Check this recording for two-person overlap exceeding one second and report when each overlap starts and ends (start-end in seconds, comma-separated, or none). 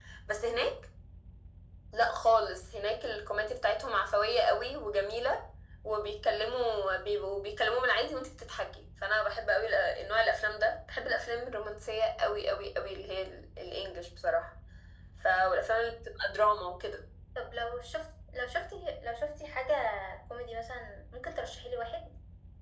none